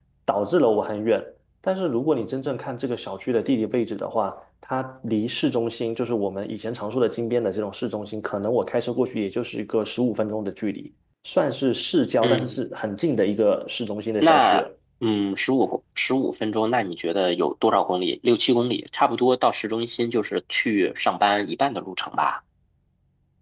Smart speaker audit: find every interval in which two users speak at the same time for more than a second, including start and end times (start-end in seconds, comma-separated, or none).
none